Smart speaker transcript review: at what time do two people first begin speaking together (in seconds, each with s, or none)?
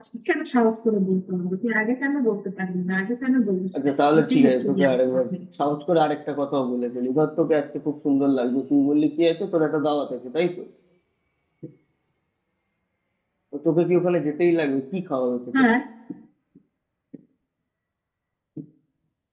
3.7 s